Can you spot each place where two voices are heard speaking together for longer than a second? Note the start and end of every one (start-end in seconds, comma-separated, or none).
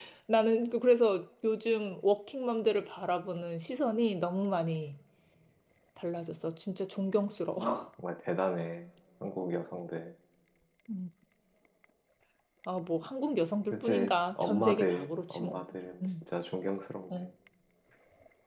13.7-15.6